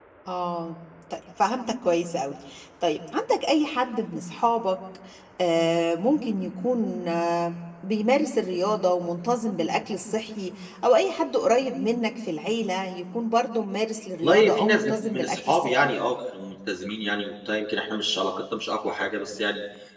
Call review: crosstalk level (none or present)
present